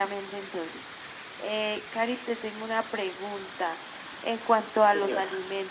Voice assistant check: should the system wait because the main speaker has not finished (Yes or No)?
Yes